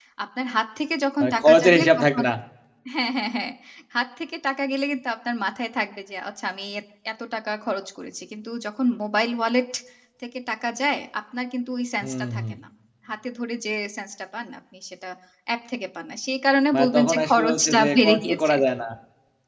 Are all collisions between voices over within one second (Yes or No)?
No